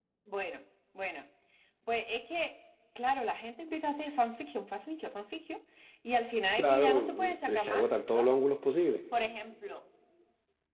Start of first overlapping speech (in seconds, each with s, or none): 6.6 s